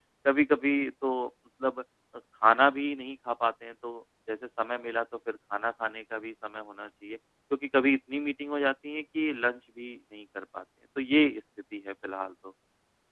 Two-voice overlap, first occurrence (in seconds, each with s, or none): none